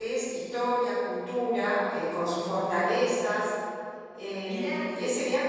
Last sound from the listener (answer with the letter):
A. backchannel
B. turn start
A